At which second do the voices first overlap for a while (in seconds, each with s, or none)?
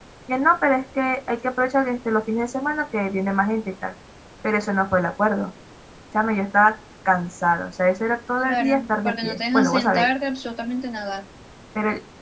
8.4 s